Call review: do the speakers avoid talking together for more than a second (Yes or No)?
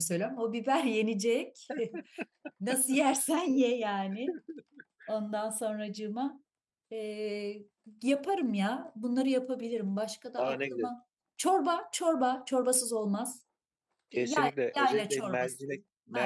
No